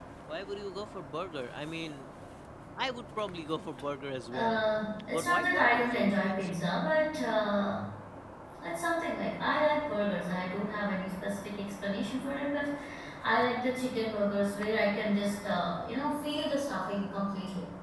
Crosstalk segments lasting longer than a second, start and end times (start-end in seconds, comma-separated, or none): 5.1-6.6